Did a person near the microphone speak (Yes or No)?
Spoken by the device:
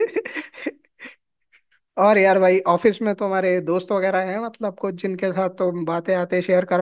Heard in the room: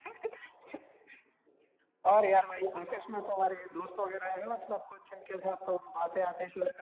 No